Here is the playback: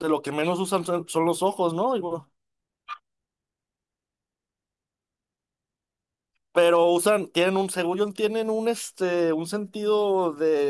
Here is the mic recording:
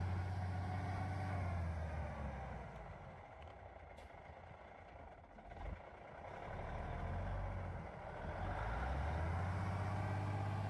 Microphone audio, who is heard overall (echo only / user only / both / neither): neither